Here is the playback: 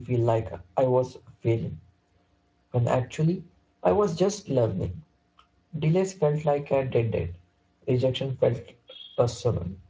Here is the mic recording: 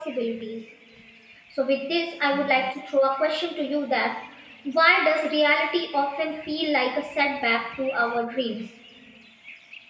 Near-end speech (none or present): present